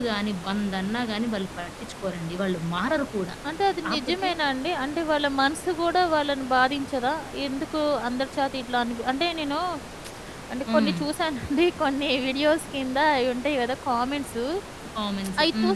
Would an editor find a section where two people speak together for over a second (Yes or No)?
No